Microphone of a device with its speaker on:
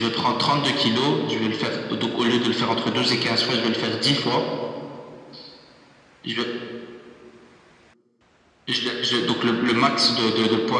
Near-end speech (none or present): none